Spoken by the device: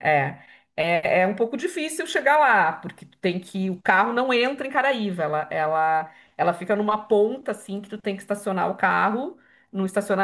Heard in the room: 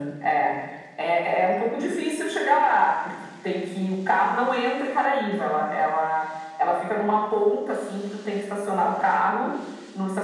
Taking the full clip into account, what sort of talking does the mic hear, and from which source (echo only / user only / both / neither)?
echo only